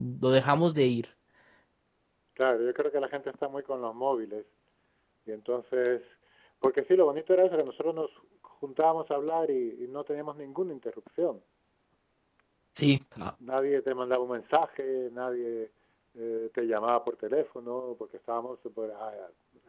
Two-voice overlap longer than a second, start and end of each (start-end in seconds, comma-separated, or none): none